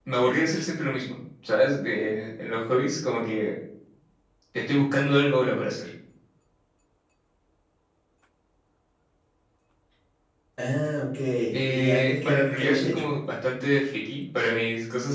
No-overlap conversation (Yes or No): No